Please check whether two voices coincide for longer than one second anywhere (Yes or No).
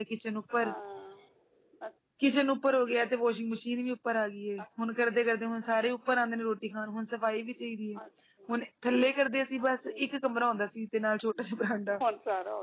No